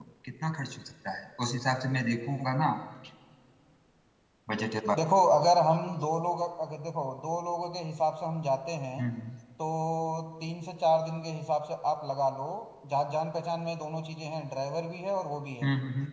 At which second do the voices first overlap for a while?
none

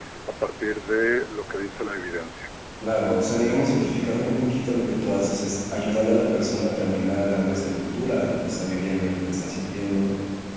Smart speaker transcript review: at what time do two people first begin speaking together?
none

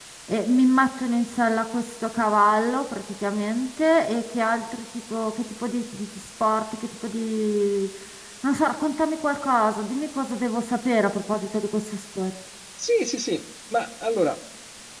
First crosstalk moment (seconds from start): none

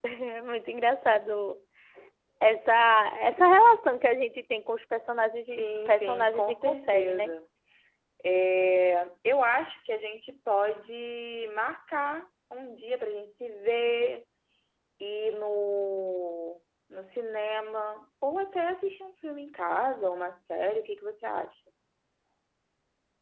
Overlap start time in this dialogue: 5.6 s

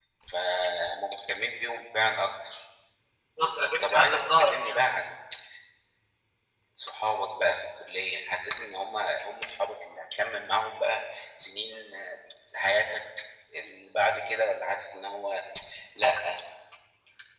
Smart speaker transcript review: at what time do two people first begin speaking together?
3.4 s

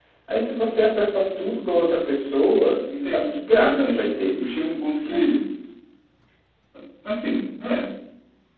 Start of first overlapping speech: 2.9 s

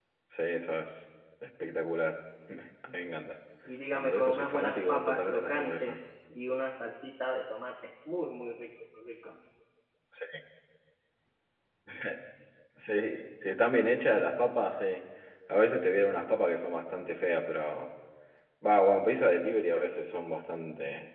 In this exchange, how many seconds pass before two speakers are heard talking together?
3.9 s

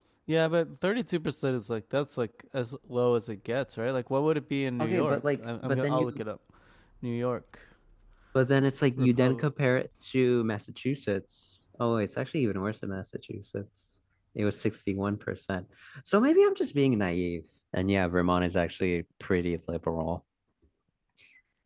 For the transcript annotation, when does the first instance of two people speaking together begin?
4.8 s

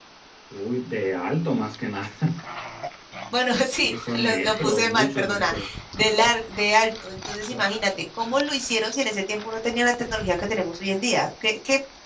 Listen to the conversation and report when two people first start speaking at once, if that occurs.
3.7 s

